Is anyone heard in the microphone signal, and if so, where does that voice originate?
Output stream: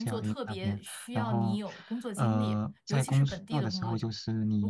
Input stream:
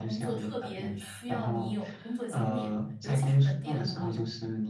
echo only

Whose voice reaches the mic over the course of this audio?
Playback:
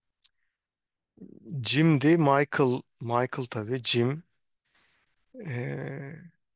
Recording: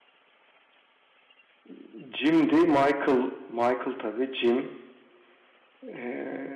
echo only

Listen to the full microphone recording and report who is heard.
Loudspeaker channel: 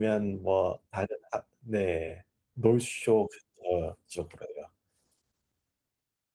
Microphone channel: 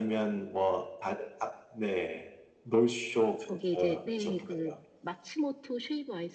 both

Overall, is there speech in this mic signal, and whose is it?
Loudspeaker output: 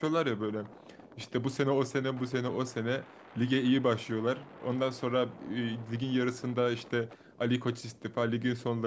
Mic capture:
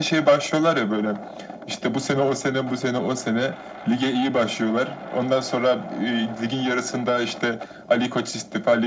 echo only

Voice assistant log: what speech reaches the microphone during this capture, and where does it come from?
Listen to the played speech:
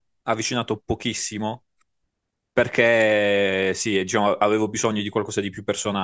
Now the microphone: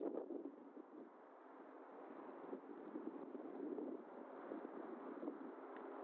neither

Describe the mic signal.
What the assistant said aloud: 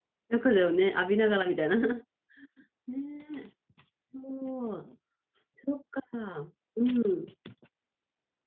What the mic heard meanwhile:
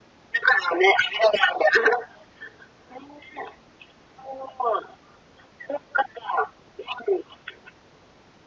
echo only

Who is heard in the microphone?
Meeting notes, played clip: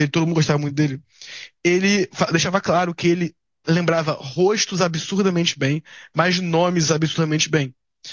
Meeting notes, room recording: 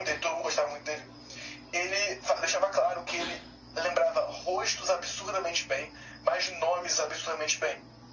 echo only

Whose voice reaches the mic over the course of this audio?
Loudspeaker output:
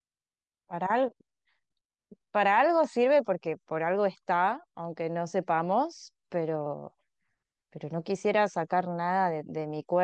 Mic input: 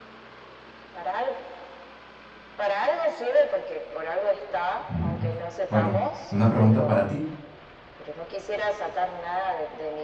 both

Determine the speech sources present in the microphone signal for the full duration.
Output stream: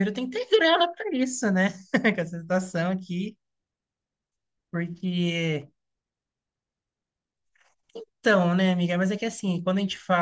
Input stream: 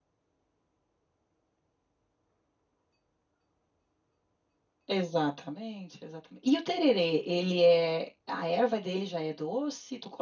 user only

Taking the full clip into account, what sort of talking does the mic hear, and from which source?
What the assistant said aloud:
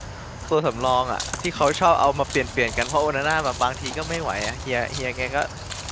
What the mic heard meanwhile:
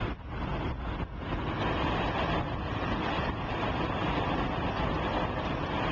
neither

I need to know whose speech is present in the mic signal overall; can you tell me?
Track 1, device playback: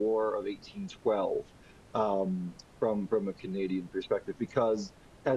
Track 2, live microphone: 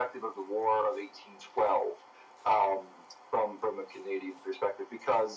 echo only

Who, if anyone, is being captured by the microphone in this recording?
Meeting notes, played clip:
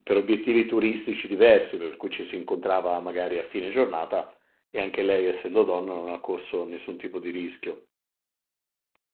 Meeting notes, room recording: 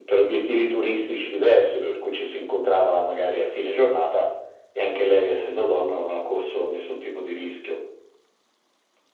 echo only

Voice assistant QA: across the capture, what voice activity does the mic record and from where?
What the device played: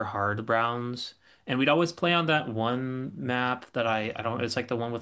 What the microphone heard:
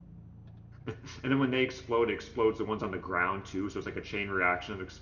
user only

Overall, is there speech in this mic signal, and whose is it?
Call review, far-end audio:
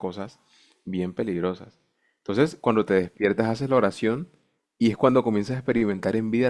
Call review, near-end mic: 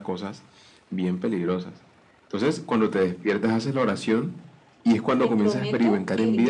both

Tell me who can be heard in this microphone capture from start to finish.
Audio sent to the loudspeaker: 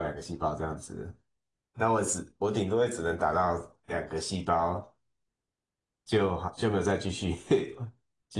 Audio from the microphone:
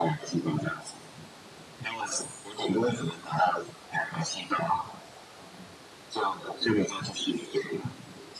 echo only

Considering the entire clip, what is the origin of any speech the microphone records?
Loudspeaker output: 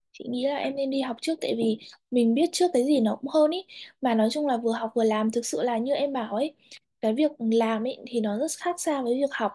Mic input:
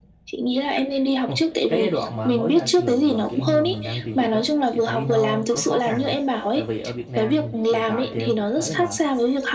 both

